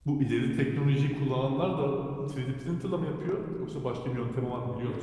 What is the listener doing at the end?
taking over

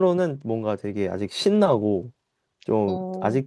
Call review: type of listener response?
listening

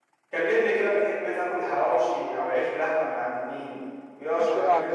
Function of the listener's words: taking over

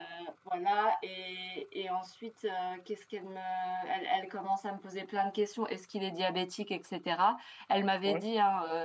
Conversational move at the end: listening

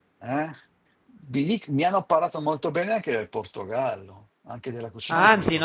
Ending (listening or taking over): taking over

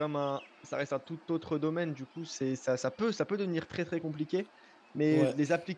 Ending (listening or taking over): listening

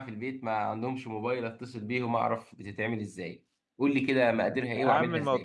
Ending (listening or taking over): taking over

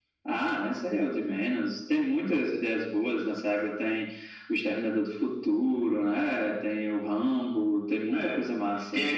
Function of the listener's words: taking over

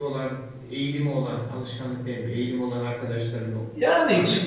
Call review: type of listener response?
taking over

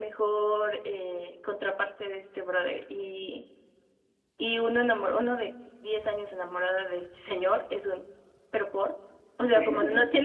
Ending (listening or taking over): listening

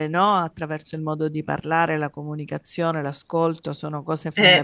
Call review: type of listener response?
listening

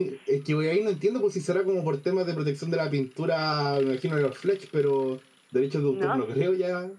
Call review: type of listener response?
taking over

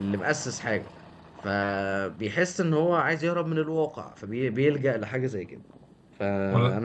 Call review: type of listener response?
listening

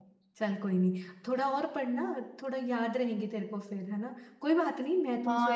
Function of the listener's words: taking over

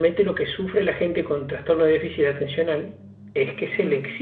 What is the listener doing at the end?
listening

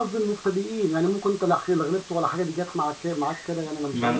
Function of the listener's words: taking over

